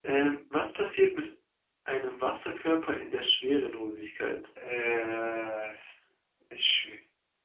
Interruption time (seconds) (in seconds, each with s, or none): none